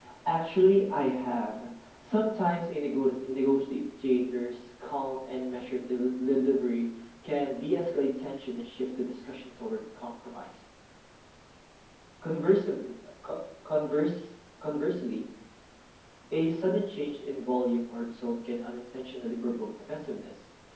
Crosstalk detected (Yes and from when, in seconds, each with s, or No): No